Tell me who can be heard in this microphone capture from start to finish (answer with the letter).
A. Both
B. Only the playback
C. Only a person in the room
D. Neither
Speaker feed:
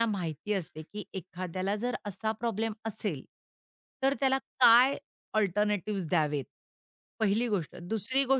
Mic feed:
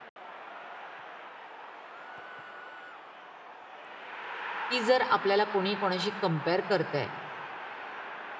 C